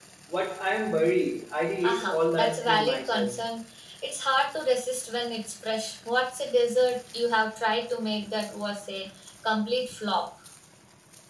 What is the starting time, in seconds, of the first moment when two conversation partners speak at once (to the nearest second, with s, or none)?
2 s